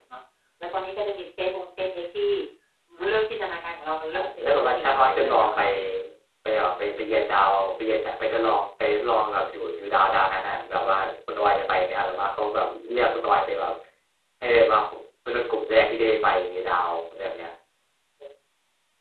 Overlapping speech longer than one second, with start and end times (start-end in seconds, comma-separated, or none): 4.1-5.6